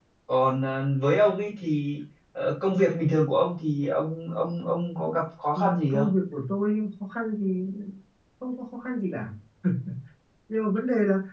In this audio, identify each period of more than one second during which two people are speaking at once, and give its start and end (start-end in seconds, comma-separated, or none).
none